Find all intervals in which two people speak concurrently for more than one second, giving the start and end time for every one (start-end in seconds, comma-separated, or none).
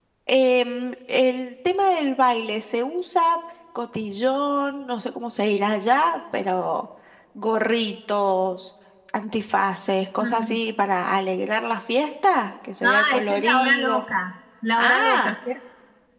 12.8-14.0